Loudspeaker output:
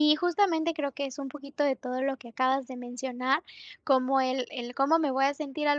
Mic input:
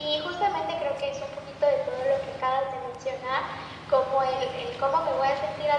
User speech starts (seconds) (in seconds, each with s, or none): none